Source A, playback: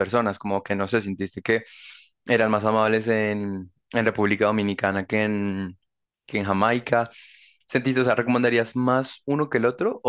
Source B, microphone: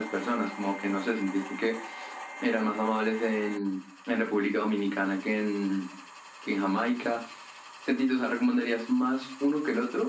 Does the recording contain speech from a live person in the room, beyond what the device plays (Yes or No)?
No